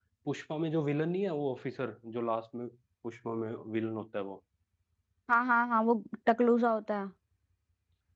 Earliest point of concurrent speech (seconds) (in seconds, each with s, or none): none